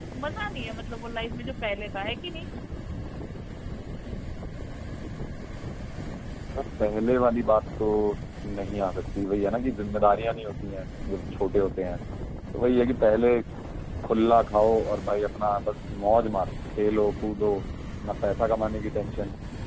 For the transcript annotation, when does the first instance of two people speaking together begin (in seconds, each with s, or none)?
none